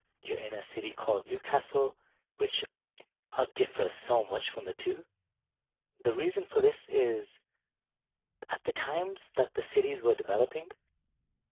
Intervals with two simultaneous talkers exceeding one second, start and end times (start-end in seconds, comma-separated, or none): none